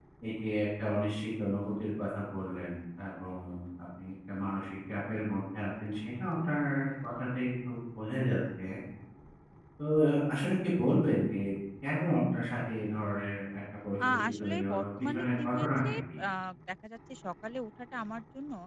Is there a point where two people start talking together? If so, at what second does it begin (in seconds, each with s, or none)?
14.0 s